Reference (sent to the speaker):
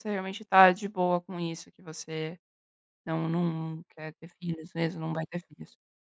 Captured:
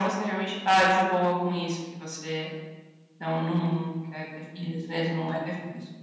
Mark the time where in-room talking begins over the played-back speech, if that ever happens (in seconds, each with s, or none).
none